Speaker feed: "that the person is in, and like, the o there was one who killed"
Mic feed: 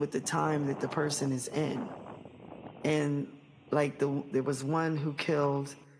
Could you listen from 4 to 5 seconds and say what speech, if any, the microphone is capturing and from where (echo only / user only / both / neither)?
echo only